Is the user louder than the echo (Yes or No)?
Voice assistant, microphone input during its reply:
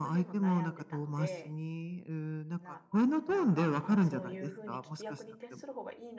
No